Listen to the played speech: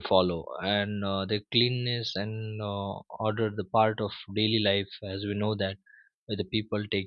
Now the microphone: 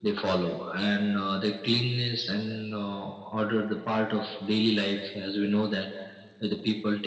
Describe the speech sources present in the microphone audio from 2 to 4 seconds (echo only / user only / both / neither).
echo only